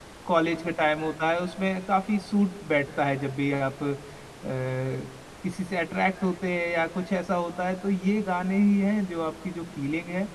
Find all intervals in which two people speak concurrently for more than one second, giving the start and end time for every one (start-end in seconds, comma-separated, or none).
none